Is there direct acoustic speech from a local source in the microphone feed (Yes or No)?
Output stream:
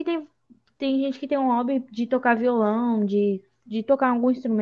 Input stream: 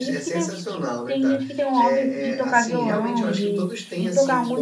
Yes